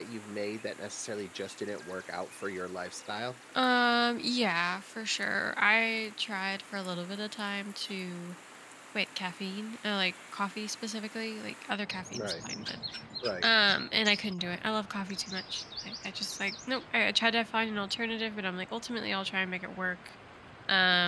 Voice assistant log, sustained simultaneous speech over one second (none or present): none